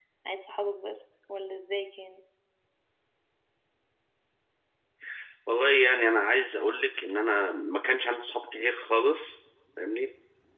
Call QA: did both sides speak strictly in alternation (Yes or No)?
Yes